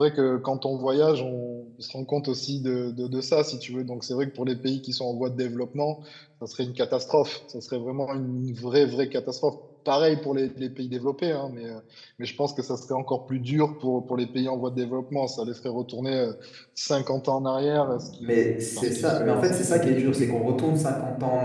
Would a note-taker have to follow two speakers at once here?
Yes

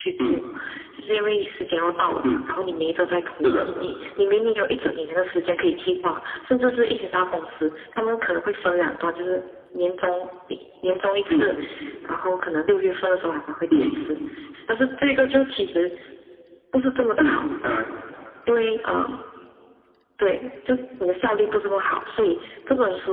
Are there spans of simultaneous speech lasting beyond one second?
No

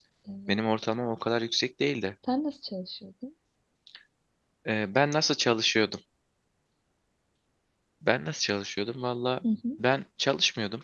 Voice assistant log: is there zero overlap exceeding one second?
Yes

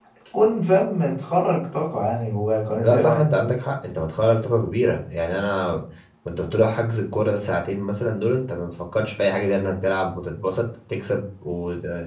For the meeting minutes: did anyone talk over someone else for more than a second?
No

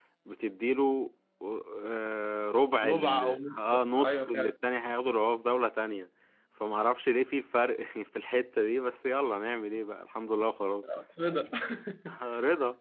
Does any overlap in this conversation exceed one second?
Yes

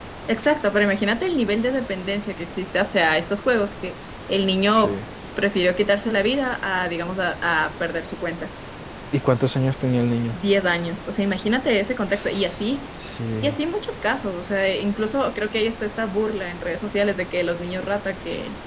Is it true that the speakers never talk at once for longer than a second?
Yes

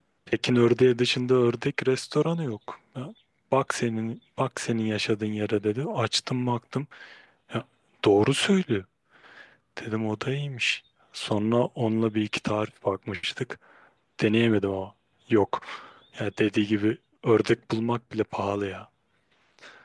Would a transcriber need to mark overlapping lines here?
No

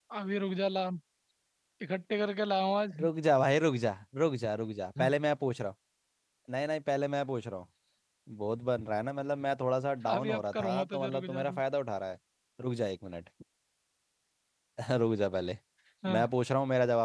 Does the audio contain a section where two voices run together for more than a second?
Yes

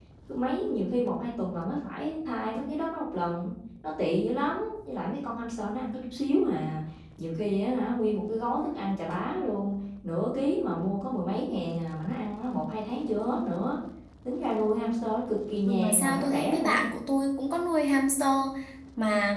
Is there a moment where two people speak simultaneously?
Yes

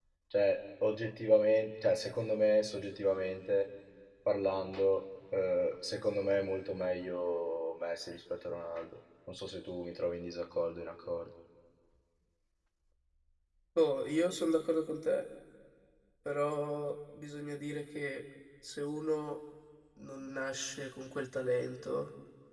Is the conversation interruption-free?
Yes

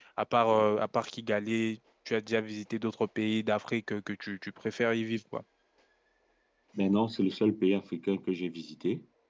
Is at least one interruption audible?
No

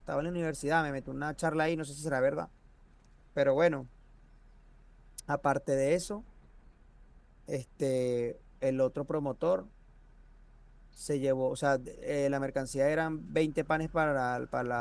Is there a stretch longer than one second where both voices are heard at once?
No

